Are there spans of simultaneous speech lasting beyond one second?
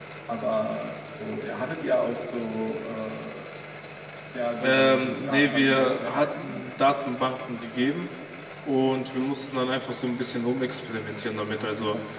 Yes, from 4.6 s

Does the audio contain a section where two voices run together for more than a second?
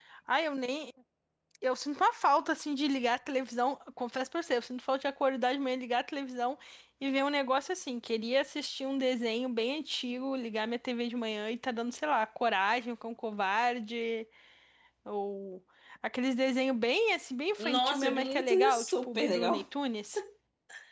Yes, from 17.6 s

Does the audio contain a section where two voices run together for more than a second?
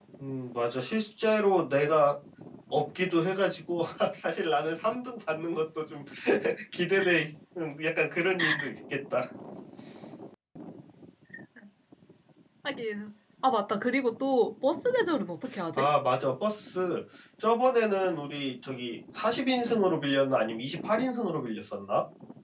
No

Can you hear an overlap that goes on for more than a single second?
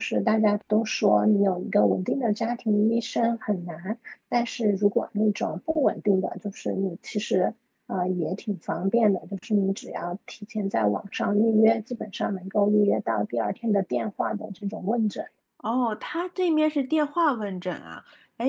No

